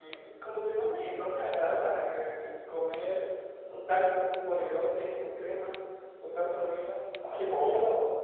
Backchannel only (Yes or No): No